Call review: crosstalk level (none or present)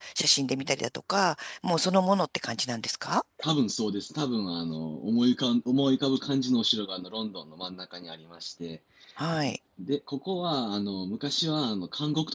none